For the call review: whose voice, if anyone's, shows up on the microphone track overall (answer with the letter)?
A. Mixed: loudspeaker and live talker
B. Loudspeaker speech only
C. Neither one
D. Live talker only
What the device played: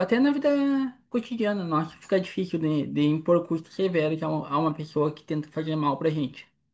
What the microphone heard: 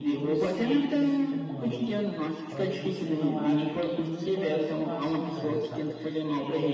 A